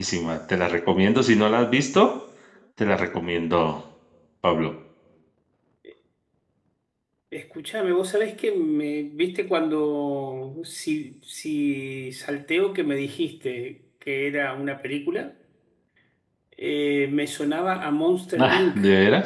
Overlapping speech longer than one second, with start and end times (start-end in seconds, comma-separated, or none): none